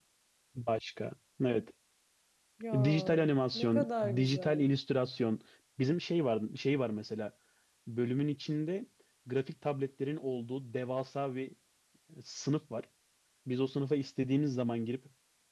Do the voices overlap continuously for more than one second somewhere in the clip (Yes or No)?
Yes